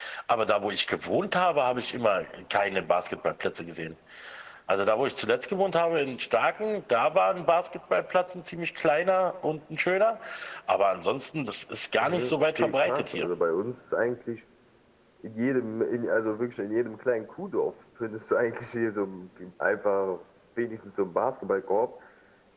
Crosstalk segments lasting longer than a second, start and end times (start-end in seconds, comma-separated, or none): 12.0-13.3